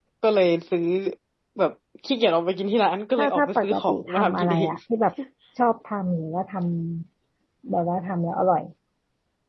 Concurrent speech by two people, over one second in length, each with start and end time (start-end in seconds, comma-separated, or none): 3.2-4.7